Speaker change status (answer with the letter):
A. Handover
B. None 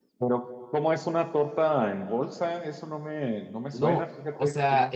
A